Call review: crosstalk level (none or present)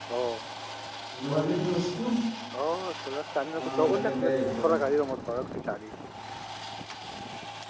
present